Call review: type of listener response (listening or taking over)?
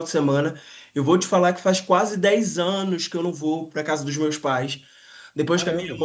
listening